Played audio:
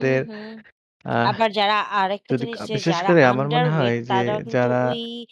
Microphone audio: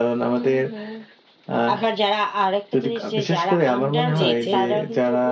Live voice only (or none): জি, জি।